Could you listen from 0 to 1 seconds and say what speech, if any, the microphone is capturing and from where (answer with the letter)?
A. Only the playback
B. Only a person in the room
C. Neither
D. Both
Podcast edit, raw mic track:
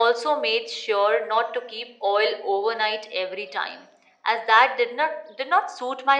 A